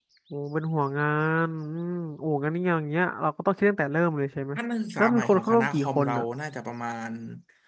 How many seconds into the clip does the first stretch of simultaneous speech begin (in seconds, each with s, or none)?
5.0 s